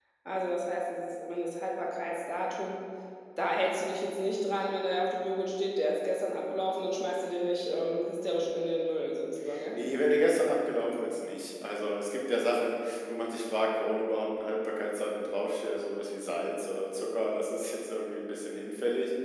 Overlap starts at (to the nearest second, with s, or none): none